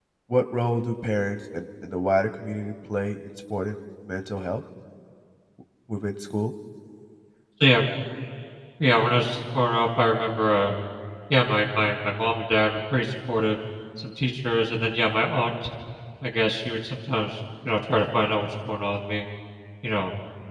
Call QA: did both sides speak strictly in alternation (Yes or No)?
Yes